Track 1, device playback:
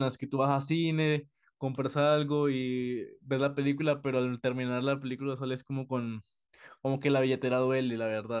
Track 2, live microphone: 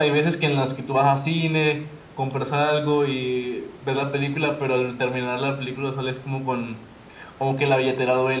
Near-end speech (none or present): none